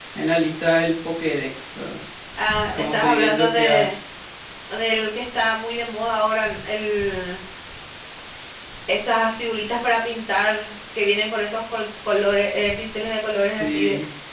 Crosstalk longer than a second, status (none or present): present